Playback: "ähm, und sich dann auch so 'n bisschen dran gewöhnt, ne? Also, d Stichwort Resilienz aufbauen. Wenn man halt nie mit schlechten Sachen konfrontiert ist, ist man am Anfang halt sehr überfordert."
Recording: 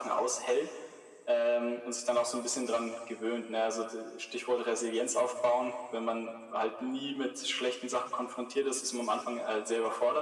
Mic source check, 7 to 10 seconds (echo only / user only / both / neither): echo only